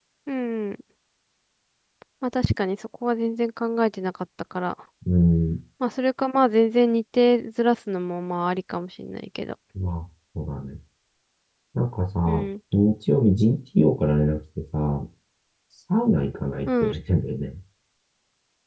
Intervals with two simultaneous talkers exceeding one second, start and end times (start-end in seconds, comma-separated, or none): none